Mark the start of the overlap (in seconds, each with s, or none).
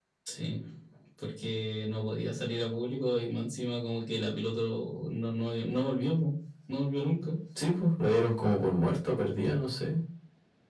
none